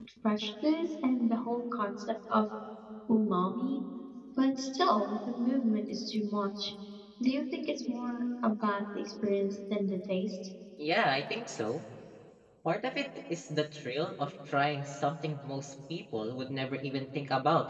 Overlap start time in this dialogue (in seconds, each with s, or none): none